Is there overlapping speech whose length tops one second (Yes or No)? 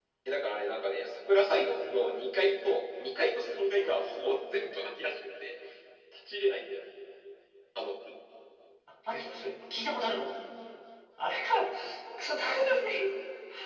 No